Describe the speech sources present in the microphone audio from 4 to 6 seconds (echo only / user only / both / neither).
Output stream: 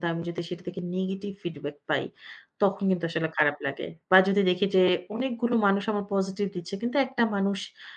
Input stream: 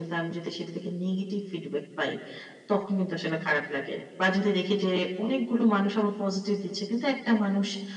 echo only